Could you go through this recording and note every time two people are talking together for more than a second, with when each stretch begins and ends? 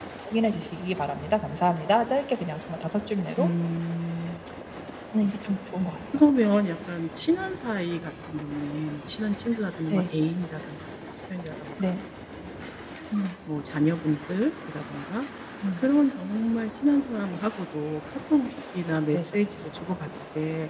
none

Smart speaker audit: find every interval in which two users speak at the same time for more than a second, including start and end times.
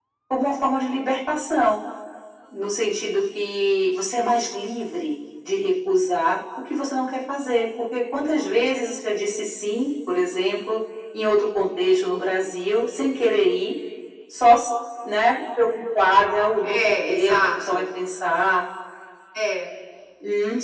16.6-17.8

